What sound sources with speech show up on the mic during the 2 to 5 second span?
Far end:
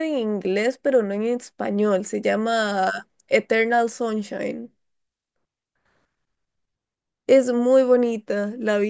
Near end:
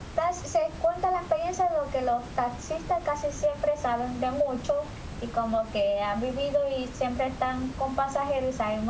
user only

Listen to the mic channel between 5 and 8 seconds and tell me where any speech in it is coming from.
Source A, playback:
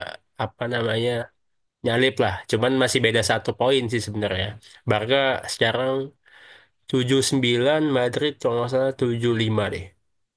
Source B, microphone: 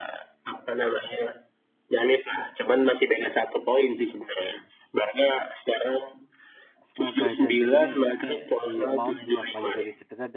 both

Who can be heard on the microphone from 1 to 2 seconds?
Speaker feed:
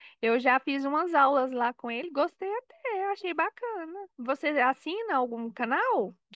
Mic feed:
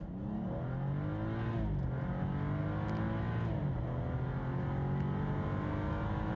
neither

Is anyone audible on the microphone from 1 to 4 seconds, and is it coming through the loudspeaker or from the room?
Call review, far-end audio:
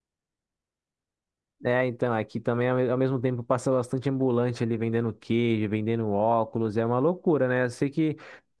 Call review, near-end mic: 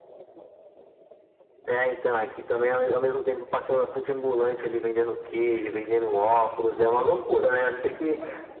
echo only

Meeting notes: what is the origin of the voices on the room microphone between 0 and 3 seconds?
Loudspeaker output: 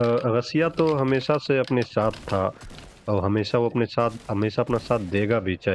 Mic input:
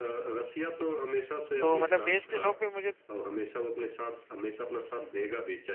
both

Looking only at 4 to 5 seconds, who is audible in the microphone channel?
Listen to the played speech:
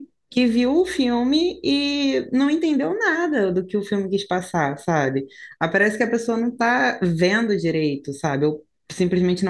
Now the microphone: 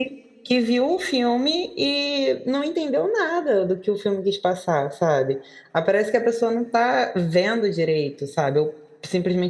echo only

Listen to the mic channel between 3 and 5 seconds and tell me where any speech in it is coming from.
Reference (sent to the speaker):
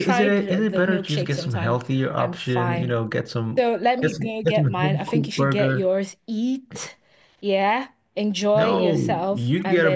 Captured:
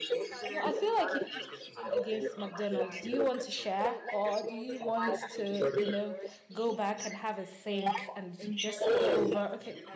both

